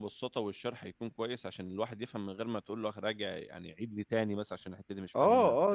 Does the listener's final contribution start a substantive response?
Yes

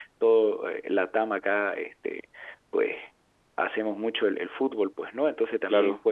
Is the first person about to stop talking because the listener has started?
No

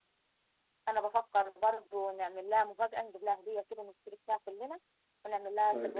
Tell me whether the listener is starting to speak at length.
Yes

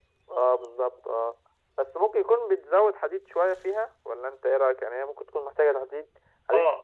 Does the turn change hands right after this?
Yes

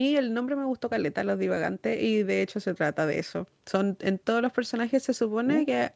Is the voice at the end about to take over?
No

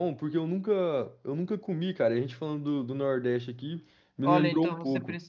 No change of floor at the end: No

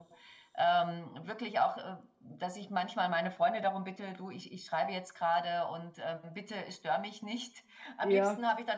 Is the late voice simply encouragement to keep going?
Yes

